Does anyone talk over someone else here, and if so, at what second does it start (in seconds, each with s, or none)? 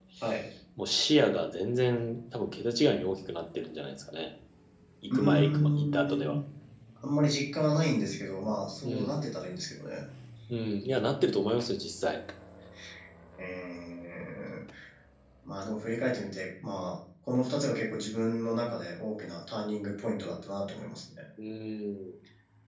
5.1 s